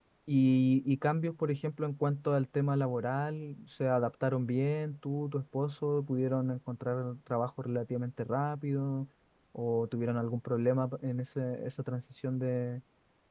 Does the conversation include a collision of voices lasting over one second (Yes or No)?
No